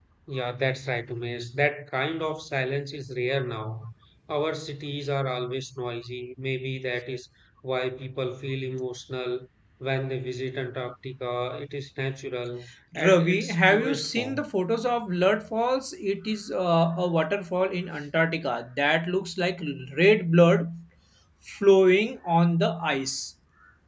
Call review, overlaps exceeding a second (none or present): present